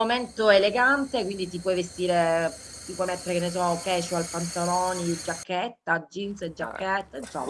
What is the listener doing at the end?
taking over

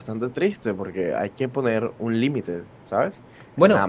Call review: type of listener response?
listening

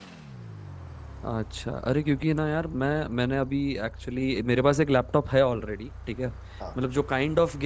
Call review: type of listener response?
listening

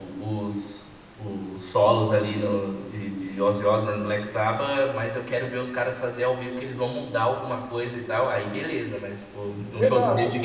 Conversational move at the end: listening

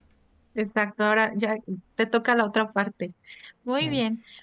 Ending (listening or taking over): listening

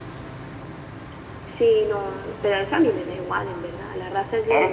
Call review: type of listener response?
taking over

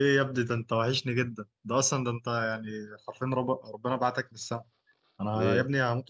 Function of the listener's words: listening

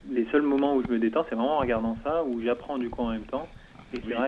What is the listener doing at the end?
listening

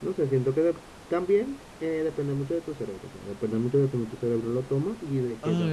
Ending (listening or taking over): taking over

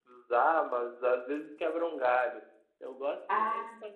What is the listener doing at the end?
listening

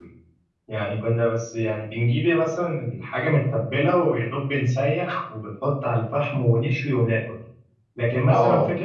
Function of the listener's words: listening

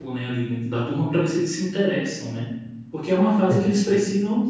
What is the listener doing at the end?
listening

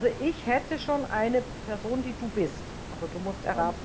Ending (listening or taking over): taking over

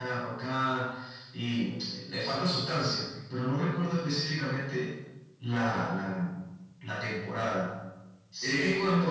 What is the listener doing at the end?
listening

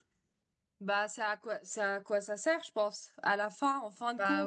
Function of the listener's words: listening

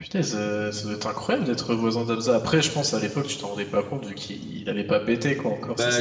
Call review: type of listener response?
taking over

